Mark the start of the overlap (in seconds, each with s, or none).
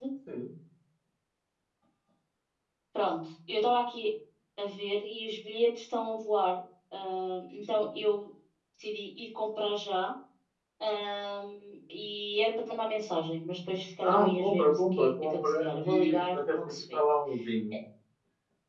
14.0 s